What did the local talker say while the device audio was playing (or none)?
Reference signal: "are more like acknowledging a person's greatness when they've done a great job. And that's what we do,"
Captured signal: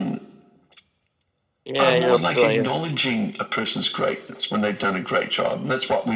yeah, you're still here.